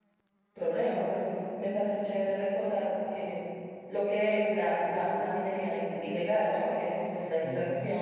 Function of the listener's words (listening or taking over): listening